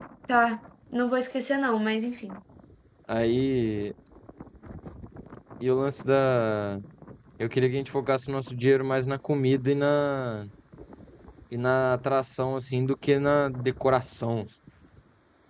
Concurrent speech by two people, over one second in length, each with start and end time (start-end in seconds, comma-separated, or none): none